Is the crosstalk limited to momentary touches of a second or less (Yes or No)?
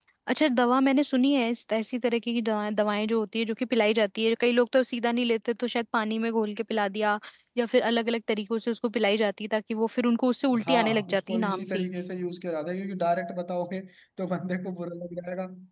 No